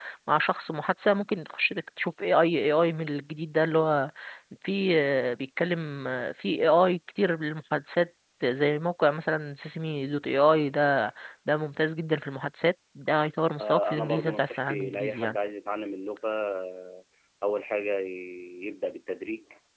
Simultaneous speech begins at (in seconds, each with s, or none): 13.6 s